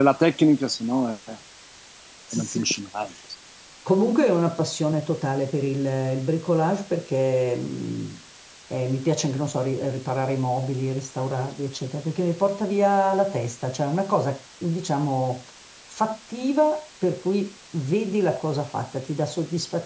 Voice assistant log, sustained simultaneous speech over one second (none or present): none